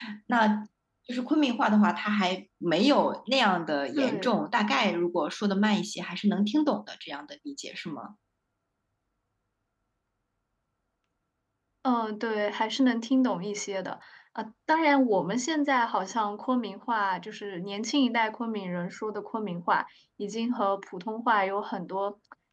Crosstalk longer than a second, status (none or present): none